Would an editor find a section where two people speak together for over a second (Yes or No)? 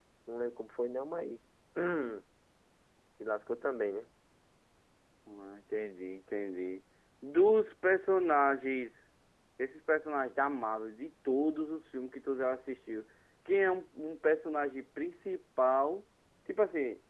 No